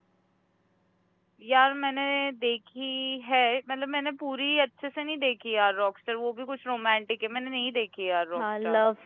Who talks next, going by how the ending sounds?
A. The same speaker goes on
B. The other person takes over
B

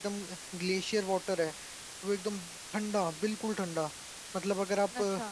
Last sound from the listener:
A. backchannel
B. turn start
A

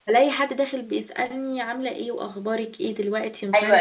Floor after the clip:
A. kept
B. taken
B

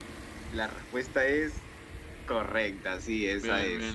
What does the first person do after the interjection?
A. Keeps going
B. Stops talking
B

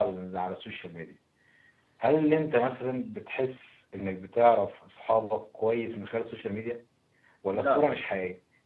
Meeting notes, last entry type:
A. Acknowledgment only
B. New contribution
A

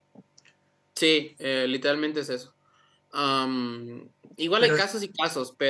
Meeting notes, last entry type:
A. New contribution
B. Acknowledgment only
B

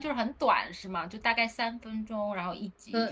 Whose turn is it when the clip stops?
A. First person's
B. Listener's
B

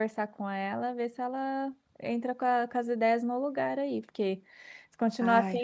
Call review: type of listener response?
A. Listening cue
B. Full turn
A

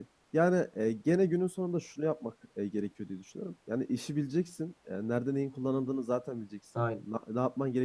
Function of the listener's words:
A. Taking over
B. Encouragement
B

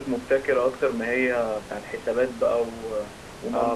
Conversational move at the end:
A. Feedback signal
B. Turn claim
B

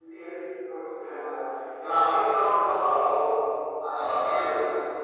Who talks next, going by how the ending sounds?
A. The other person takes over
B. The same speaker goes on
A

